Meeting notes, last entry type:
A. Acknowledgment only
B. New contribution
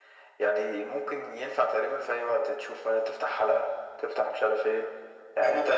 A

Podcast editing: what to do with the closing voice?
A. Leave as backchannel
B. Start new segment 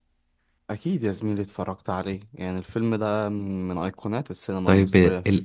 B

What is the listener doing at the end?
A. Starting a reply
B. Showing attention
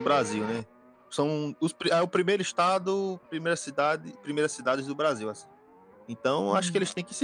B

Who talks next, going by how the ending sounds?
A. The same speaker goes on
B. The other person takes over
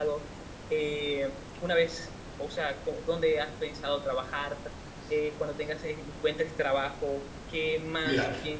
A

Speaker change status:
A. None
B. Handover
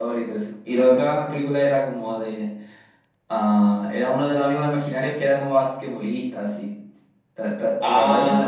B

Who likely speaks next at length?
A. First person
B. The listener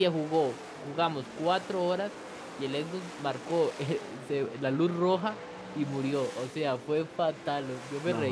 A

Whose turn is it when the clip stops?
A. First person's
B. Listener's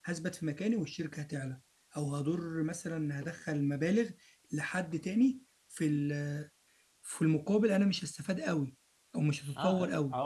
B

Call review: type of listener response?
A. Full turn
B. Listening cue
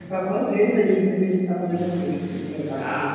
A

